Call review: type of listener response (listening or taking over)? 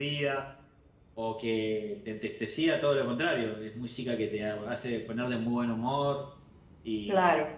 taking over